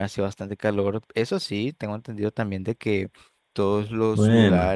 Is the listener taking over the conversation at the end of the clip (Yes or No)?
No